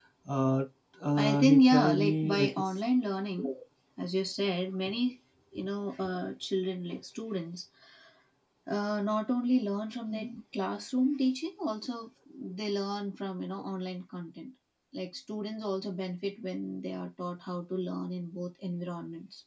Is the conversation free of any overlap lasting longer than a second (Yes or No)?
No